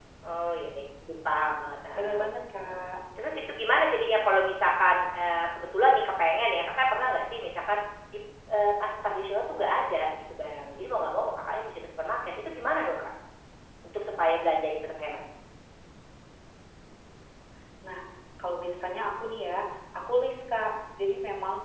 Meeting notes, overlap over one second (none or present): none